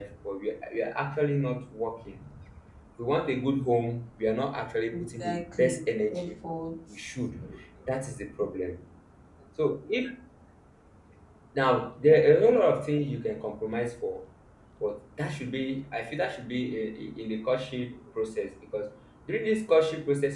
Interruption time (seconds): 5 s

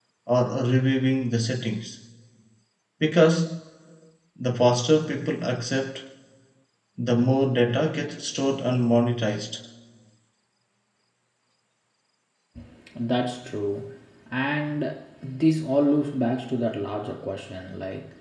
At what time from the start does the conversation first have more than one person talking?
none

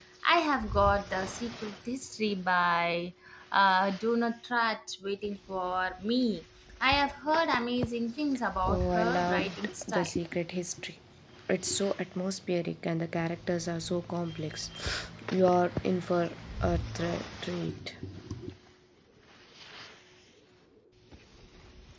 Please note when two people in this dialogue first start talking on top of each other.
9 s

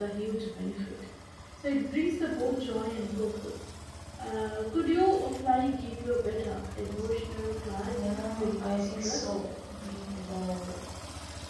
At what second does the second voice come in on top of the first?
8 s

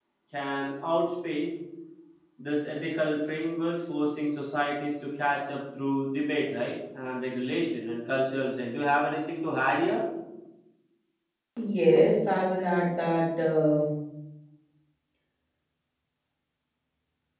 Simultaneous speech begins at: none

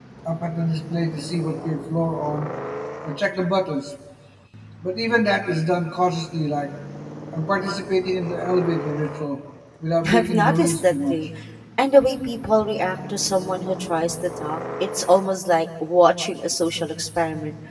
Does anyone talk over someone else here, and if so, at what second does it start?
10 s

